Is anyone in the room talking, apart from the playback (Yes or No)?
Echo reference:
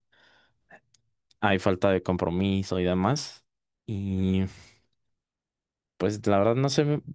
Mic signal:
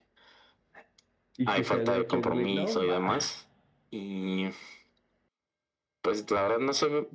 Yes